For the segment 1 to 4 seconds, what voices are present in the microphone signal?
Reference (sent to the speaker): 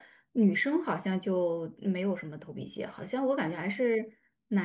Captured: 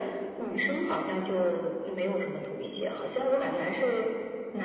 echo only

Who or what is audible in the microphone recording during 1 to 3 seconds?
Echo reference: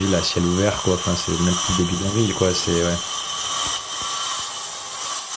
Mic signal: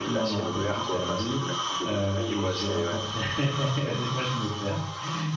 both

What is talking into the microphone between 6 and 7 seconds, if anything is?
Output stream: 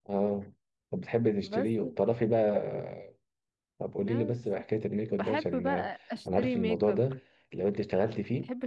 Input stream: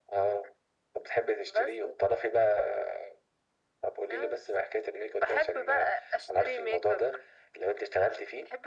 echo only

